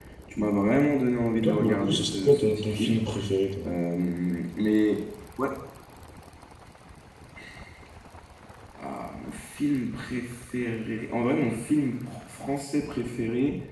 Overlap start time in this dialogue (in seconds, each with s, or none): 1.3 s